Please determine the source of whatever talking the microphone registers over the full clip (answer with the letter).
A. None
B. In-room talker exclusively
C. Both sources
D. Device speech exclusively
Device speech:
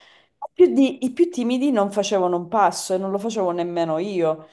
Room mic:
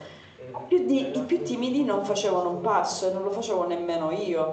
C